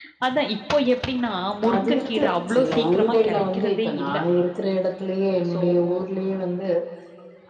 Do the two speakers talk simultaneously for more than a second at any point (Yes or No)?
Yes